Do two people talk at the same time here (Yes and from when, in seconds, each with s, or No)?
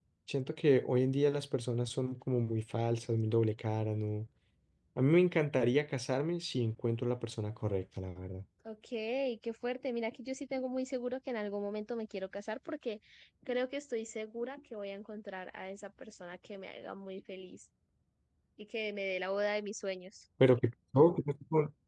No